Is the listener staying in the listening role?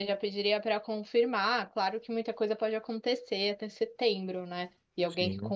Yes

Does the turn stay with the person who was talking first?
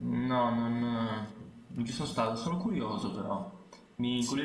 Yes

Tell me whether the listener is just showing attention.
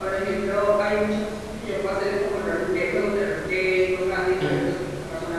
Yes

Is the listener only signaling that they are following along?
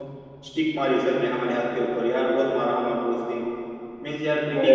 Yes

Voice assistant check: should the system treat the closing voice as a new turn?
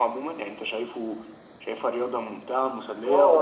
Yes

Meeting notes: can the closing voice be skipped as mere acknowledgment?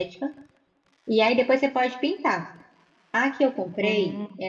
Yes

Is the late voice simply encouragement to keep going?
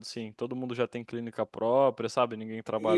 No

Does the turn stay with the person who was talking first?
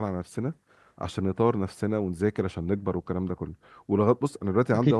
Yes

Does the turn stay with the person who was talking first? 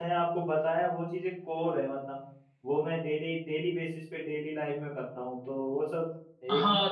No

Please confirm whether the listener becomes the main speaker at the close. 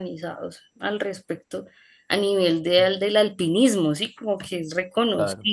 No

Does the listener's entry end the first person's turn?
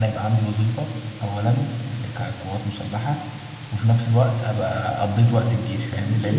Yes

